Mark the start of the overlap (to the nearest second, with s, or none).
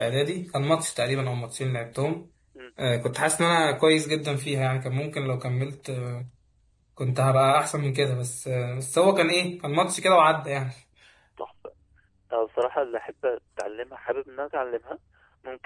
none